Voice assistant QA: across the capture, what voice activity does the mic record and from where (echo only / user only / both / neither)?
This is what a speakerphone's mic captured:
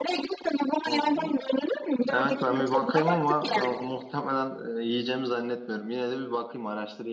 both